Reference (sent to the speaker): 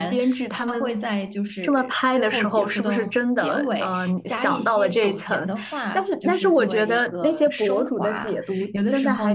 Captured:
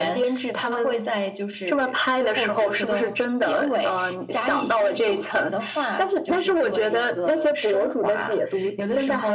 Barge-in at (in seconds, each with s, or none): none